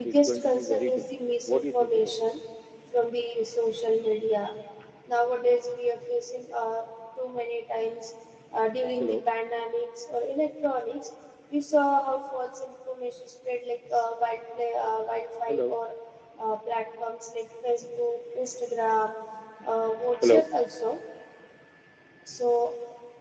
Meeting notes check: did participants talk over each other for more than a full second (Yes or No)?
Yes